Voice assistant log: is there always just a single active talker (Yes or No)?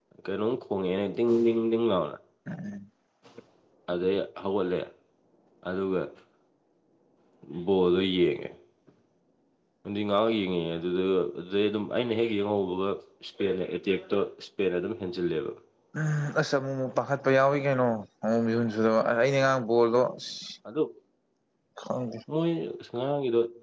Yes